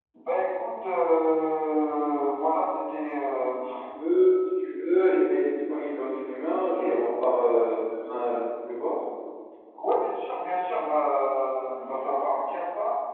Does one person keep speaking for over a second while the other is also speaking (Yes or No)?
No